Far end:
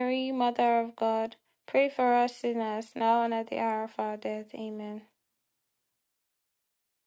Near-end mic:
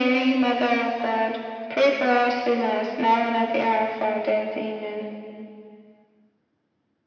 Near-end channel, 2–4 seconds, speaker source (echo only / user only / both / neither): echo only